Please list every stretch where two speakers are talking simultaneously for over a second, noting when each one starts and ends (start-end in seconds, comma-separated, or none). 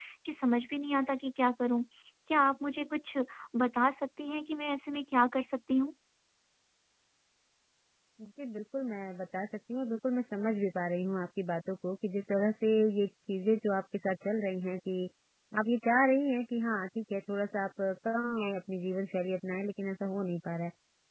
none